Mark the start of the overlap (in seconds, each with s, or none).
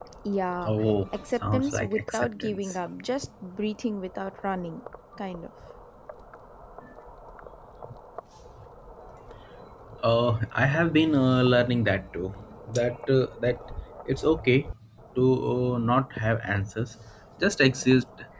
1.4 s